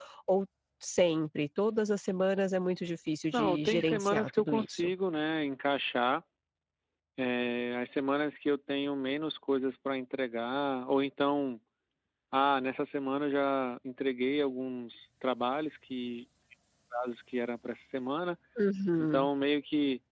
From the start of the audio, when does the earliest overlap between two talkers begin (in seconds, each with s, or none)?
3.3 s